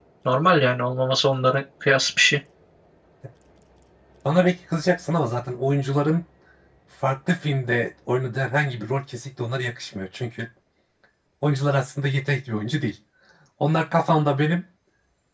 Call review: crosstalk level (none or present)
none